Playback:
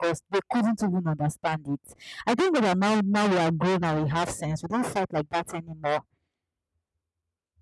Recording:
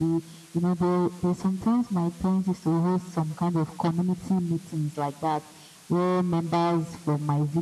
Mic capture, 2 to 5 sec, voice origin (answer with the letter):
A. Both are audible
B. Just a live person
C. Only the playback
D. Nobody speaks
B